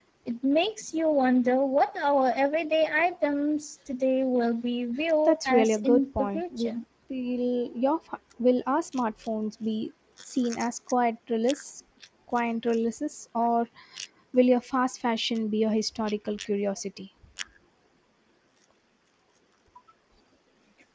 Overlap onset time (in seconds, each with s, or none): 5.3 s